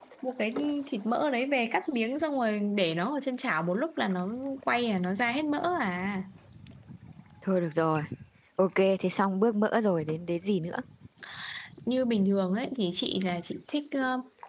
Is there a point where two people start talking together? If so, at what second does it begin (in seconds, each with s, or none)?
none